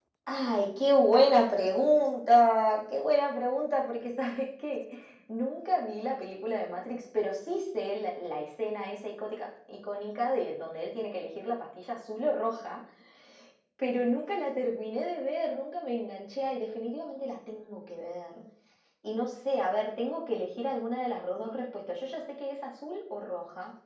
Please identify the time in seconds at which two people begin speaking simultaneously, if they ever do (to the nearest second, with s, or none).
none